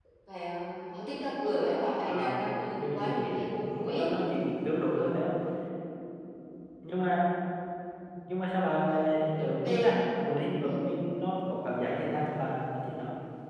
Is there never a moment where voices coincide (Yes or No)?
No